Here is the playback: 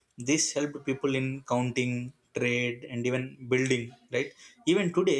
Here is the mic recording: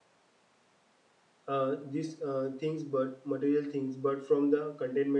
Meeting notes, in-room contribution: present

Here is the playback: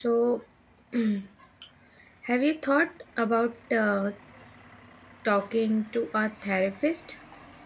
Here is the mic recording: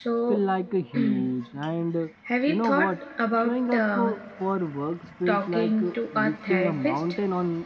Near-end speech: present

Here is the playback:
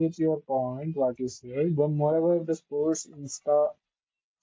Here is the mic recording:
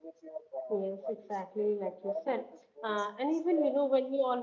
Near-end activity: present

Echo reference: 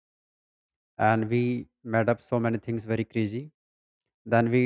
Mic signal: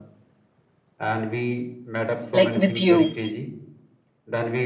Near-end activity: present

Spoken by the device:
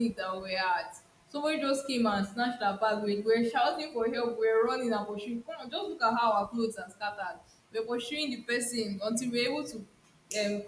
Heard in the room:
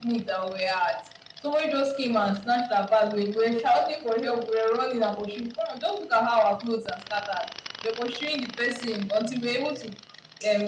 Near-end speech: none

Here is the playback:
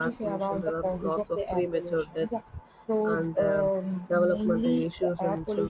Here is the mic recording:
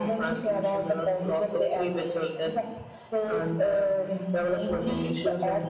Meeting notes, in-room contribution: present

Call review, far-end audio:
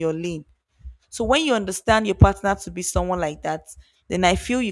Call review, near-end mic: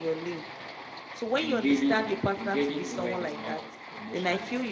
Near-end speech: present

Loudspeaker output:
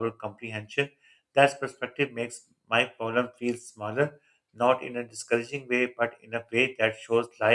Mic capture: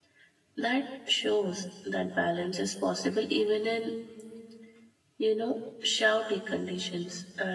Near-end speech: present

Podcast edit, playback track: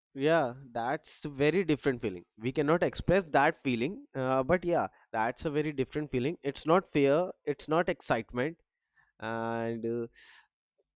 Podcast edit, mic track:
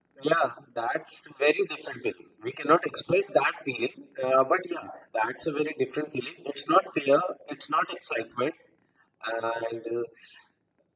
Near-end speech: none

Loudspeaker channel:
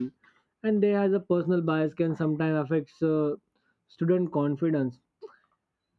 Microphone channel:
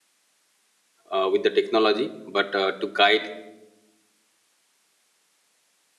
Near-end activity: present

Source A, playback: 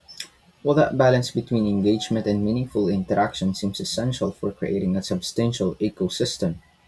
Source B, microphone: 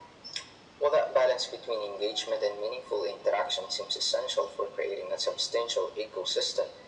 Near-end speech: none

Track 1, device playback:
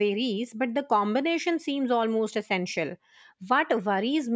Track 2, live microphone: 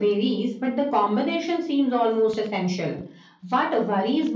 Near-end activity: none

